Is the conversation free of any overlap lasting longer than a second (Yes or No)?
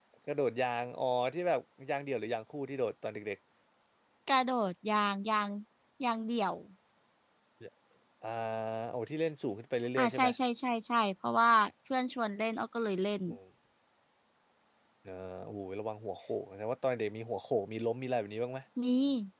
Yes